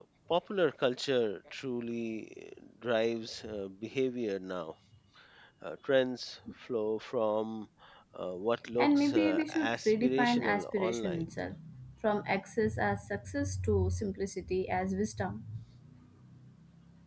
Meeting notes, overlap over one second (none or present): present